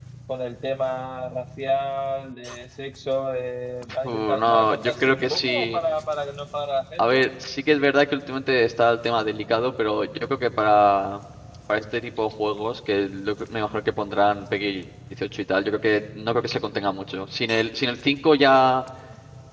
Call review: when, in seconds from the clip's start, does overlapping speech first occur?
4 s

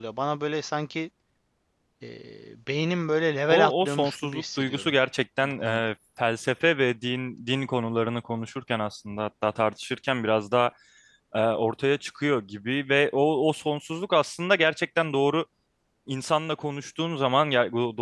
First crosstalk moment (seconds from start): 3 s

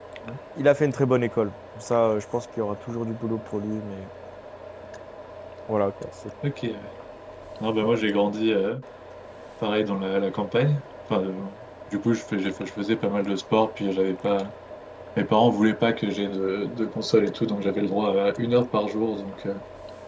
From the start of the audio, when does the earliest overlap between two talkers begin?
none

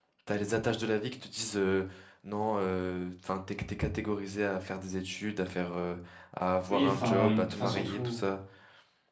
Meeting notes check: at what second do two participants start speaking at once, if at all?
7 s

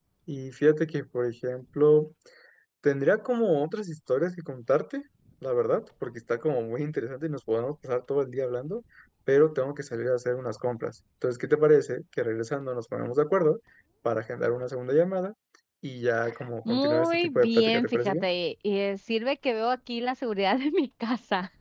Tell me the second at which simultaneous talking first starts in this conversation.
17 s

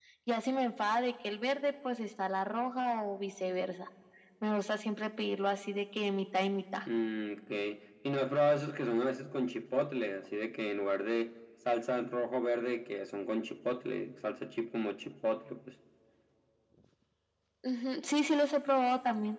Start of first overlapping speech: none

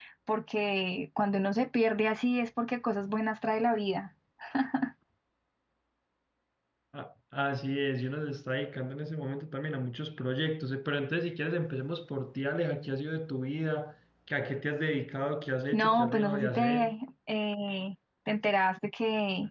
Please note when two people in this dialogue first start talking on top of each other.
16 s

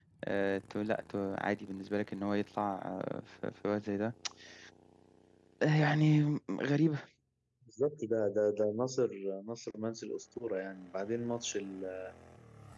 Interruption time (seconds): none

